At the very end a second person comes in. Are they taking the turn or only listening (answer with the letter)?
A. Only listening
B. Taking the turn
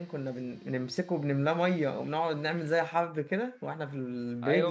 B